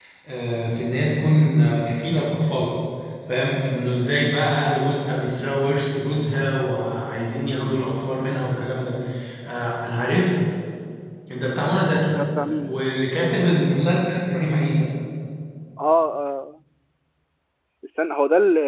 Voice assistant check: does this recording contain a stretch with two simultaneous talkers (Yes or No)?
No